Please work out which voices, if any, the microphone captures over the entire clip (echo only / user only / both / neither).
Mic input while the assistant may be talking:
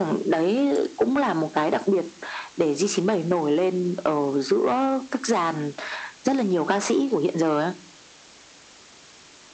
echo only